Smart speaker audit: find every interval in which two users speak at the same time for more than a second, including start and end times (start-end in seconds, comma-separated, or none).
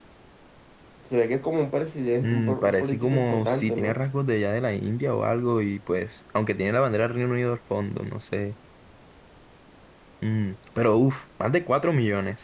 2.1-4.0